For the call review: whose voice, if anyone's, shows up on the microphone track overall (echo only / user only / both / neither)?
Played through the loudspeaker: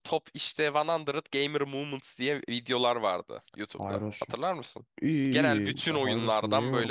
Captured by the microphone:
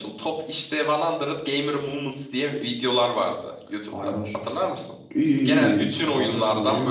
echo only